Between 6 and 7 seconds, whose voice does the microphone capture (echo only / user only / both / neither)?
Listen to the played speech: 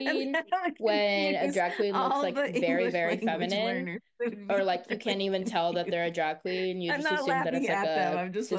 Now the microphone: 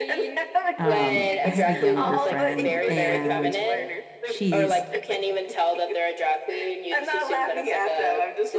echo only